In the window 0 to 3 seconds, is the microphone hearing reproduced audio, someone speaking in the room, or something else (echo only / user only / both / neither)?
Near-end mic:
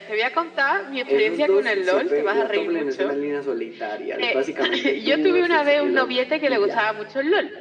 echo only